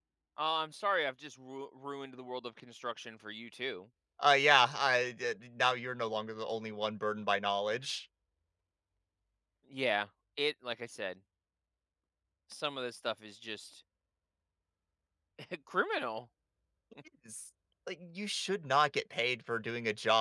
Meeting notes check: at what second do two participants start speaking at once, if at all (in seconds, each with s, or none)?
none